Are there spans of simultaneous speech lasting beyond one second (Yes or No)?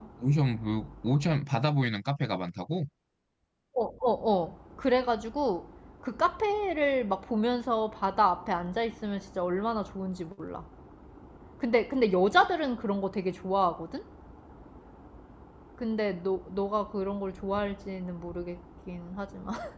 No